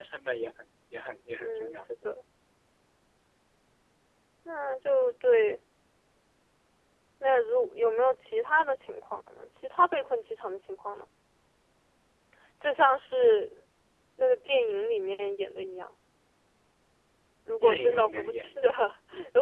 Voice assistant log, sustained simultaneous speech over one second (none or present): present